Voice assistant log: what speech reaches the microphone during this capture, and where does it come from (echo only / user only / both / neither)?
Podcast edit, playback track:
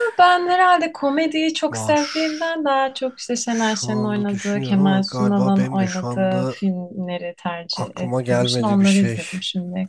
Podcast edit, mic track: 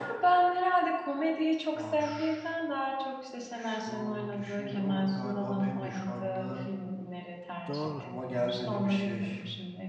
both